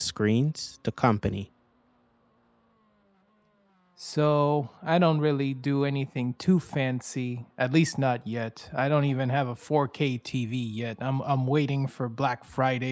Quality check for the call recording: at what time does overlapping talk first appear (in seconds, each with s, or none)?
none